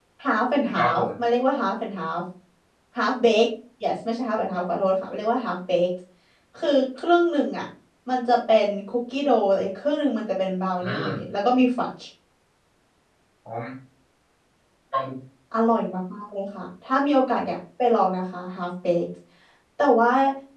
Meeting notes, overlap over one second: none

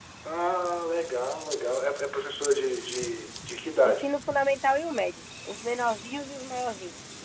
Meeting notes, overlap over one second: none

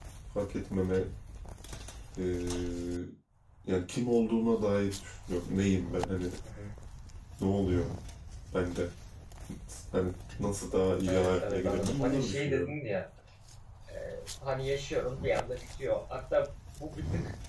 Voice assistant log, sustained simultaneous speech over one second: present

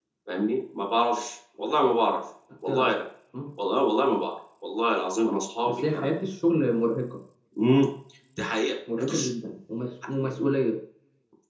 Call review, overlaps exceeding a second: none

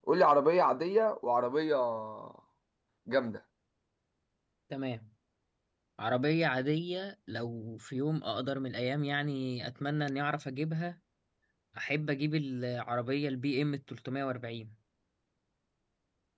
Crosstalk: none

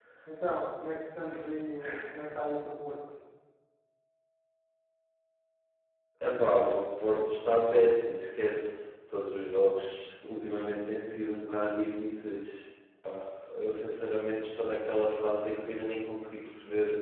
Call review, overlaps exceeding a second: none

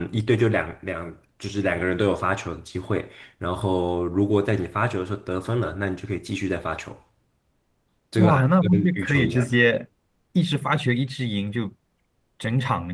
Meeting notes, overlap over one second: present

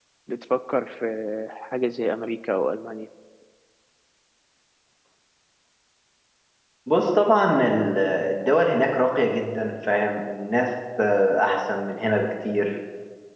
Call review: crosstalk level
none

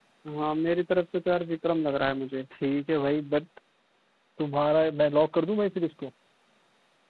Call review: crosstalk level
none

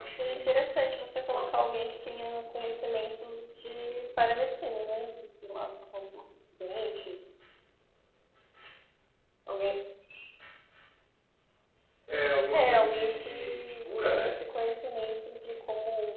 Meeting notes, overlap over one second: present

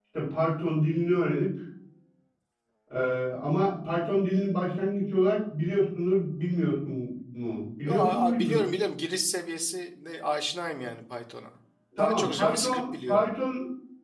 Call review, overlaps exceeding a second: present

